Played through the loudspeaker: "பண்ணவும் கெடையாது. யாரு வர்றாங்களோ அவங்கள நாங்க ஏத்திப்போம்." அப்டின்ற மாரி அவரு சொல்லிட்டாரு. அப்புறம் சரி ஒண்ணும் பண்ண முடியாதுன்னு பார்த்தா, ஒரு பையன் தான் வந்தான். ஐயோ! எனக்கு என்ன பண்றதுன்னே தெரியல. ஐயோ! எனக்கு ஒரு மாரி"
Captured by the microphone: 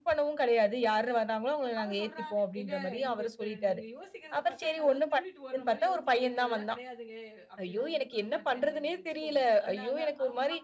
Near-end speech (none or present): present